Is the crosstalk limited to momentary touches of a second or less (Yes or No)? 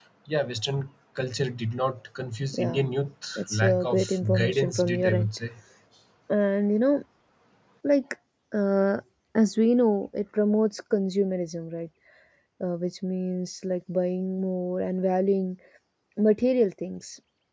No